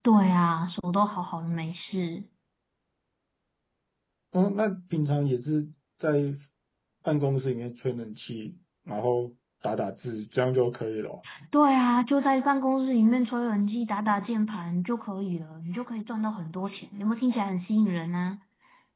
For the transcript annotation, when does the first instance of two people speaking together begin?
none

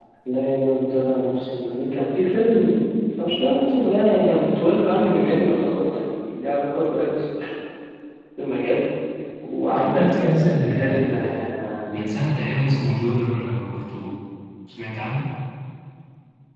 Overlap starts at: 9.7 s

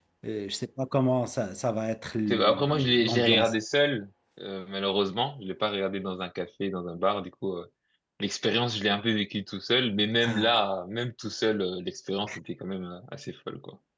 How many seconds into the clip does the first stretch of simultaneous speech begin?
2.3 s

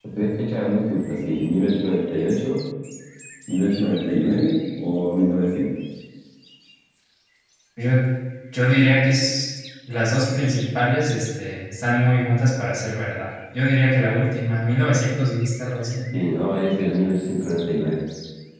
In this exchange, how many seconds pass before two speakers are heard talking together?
none

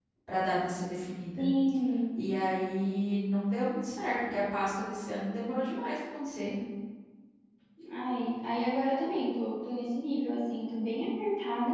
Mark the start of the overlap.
none

